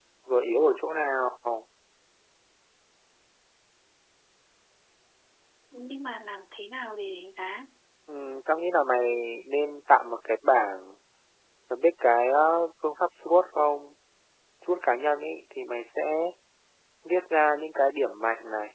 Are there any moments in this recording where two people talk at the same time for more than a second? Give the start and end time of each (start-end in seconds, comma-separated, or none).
none